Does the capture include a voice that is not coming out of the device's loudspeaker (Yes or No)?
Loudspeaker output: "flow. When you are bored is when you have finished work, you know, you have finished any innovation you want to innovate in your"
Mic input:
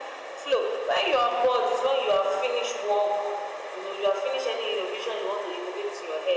No